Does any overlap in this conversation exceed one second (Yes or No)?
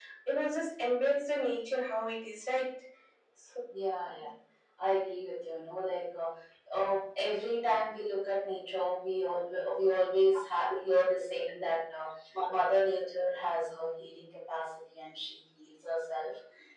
No